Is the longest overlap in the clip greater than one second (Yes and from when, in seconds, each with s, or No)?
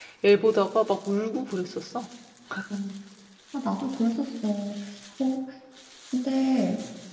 No